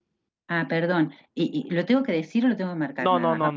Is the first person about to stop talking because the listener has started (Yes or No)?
Yes